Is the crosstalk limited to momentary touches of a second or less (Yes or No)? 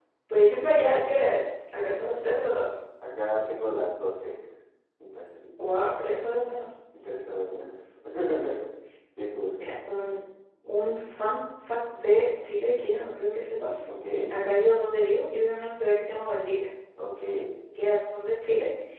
Yes